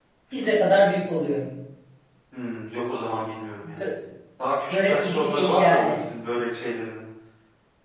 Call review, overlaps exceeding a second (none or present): present